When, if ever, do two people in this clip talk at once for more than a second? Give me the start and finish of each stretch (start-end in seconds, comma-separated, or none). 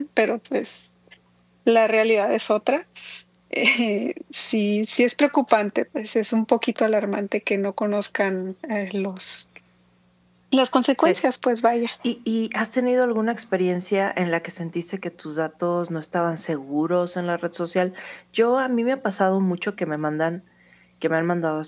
none